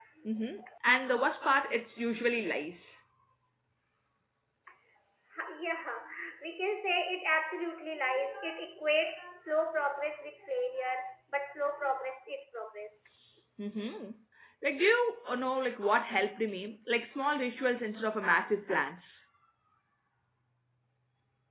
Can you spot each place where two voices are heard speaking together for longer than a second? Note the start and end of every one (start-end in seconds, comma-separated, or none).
none